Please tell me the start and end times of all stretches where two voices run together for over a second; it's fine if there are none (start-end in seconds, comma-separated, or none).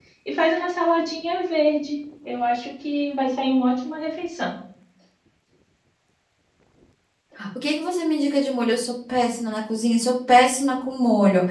none